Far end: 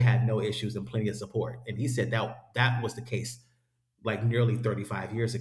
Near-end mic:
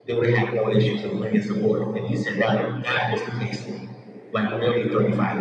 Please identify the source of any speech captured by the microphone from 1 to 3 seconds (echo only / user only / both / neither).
echo only